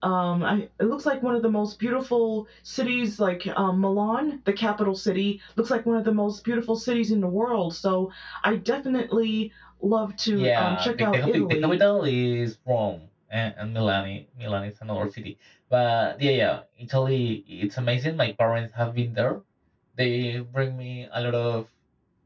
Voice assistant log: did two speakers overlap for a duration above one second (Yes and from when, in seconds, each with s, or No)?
Yes, from 10.3 s